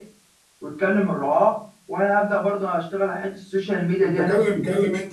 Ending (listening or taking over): taking over